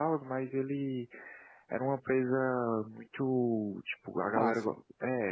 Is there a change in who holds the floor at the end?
No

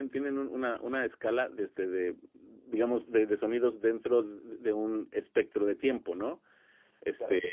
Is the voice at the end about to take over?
No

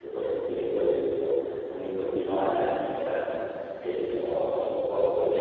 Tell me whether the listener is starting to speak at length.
No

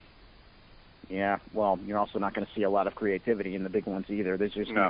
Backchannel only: Yes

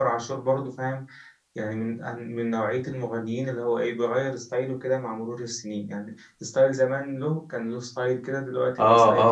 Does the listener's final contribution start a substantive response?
Yes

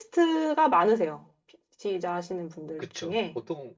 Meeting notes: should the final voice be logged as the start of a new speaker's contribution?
Yes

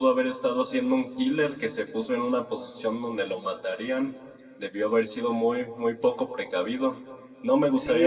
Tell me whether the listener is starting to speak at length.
Yes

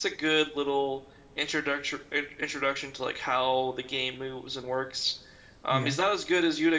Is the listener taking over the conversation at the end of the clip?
No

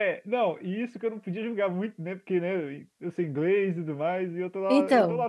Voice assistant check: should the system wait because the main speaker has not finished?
Yes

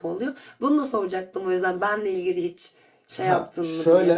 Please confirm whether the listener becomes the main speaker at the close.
Yes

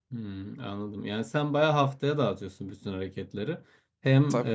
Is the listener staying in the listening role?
Yes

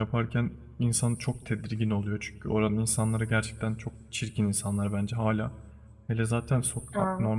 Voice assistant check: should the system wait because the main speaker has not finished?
Yes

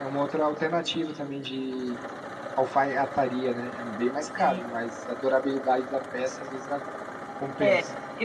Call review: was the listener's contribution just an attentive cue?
No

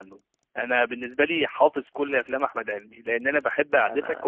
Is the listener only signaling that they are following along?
Yes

